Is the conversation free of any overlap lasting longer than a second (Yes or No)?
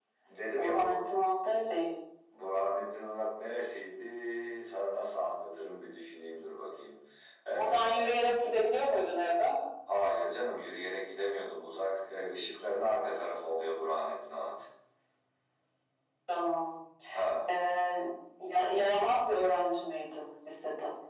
Yes